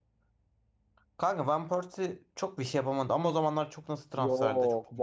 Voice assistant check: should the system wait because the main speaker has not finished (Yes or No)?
No